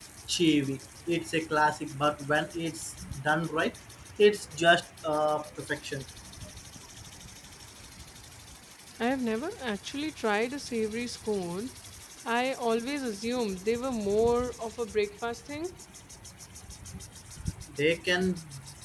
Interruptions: none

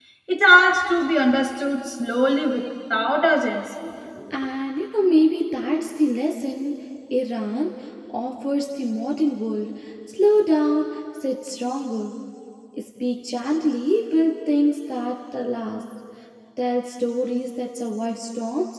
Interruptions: none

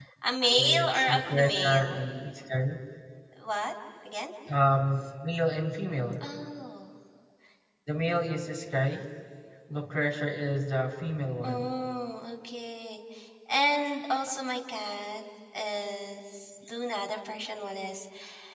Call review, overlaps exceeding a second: present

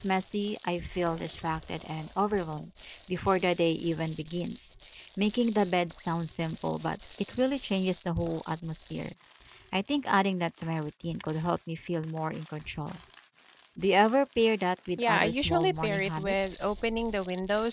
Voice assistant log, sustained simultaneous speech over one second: present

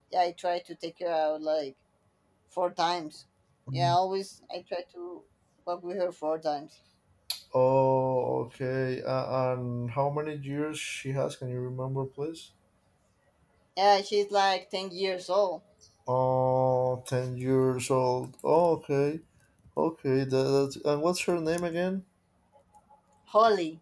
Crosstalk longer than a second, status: none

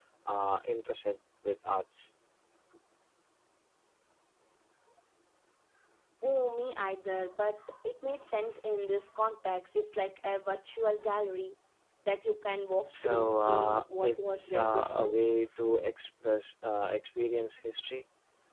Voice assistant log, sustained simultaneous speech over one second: present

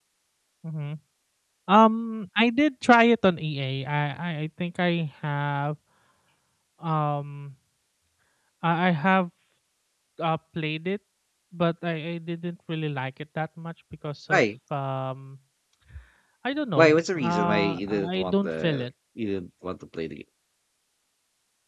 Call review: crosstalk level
present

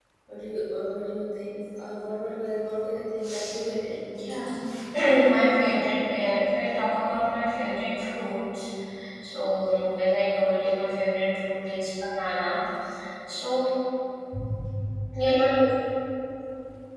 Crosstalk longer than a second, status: none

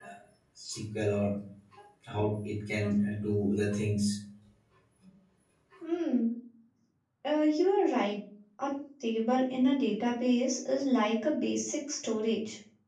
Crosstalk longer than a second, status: none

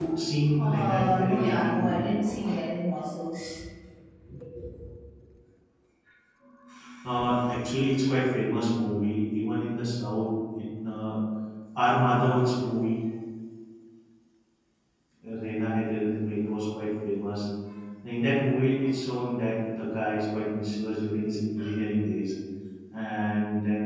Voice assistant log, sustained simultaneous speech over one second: present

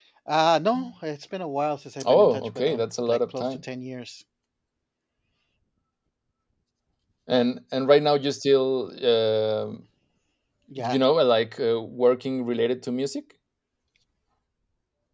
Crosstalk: present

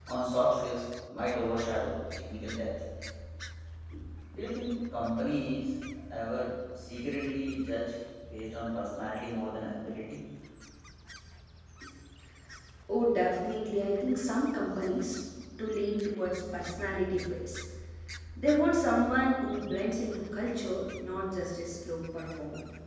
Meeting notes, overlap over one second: none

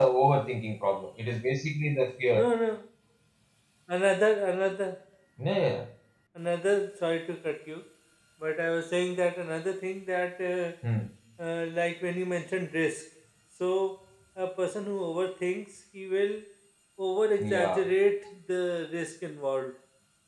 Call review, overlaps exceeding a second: none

